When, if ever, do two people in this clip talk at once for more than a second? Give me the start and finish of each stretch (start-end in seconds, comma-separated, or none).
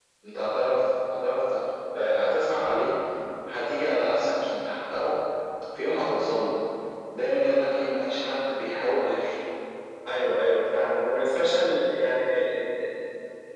none